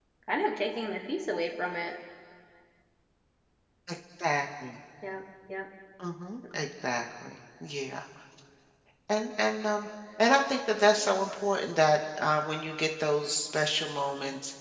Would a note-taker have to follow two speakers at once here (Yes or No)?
No